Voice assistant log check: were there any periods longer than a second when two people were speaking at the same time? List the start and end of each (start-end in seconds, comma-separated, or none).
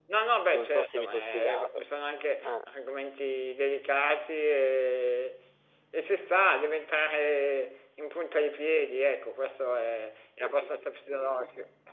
0.5-1.8